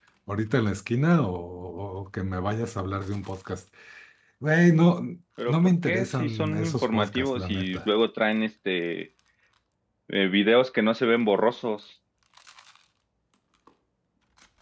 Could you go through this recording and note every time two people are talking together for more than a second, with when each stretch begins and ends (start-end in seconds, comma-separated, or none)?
5.5-7.8